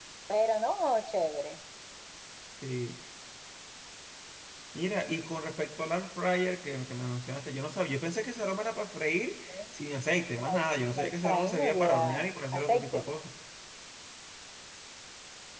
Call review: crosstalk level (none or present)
present